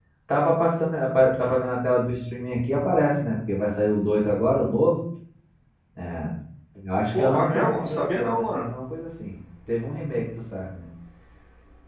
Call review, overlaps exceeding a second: present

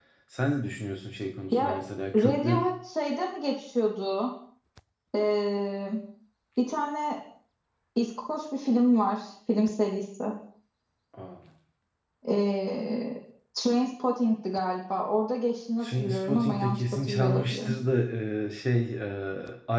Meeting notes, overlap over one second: present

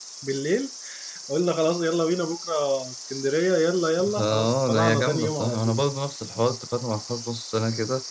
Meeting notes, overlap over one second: present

